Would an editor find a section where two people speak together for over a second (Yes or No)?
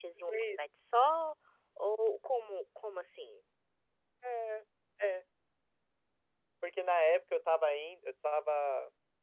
No